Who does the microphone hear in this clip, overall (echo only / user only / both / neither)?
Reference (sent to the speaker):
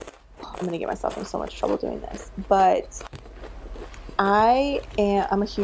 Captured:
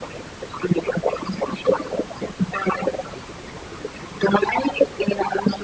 echo only